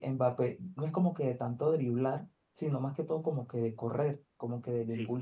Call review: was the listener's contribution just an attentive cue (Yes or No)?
Yes